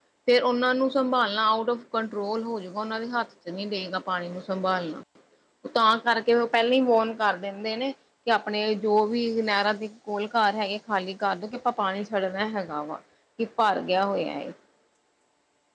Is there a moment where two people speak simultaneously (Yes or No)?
No